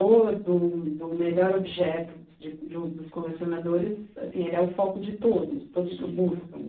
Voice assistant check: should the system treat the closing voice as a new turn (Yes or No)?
Yes